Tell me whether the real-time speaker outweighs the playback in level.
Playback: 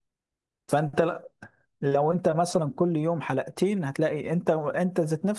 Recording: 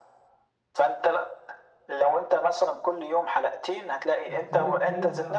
No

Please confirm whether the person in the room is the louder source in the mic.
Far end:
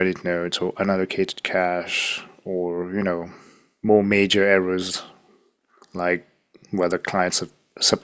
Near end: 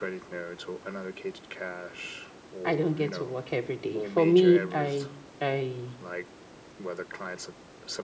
Yes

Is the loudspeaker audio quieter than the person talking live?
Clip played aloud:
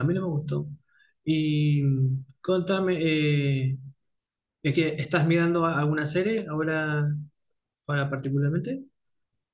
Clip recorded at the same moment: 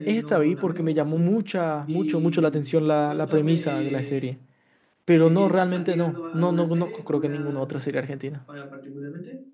Yes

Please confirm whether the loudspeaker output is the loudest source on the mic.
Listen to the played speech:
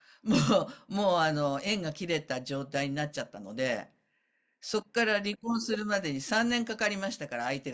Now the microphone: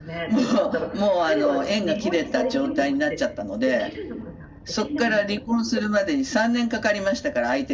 Yes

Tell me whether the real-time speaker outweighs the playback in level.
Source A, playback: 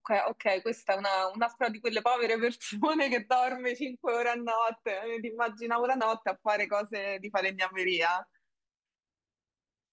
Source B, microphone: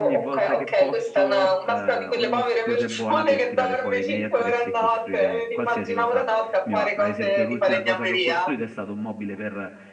No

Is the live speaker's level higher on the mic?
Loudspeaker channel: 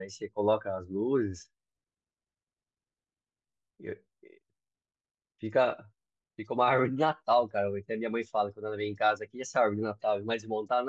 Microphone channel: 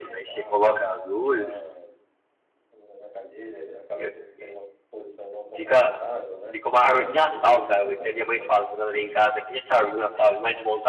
No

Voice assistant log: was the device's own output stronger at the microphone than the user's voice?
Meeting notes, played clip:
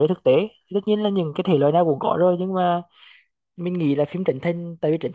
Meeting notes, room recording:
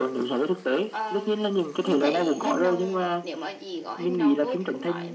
Yes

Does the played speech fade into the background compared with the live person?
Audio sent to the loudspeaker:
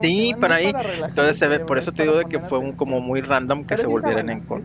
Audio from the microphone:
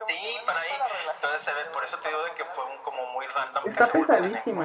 Yes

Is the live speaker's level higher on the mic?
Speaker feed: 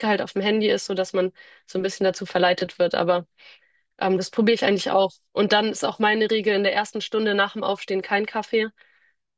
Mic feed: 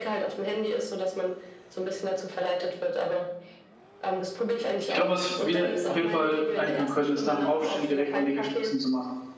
Yes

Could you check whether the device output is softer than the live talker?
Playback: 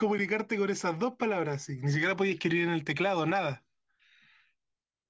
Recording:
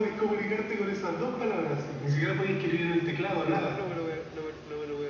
No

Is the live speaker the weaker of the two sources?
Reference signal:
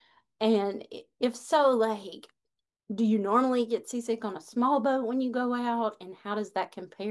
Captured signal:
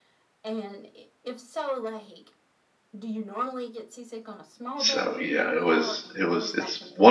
No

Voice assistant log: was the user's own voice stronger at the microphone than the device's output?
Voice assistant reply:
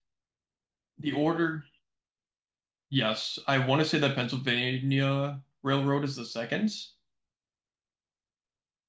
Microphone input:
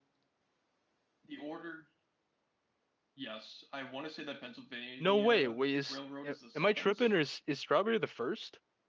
Yes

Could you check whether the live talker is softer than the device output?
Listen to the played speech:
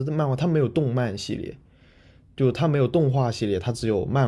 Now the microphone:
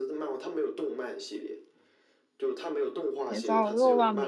No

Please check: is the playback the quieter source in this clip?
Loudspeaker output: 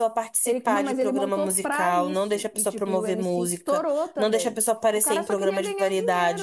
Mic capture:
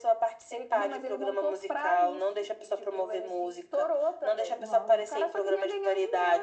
No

